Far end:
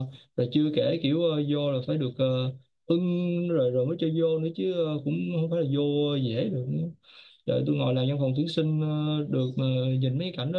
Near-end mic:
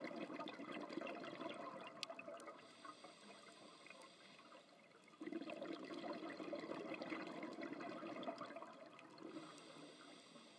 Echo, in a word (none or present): none